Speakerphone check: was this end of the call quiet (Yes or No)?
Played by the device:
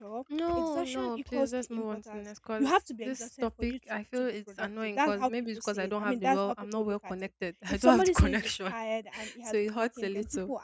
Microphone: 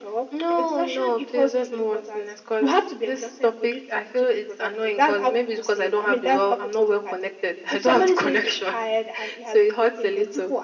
Yes